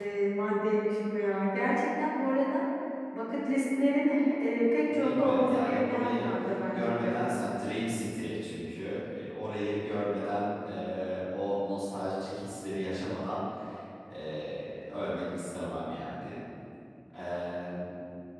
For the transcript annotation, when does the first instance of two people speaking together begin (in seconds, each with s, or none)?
4.9 s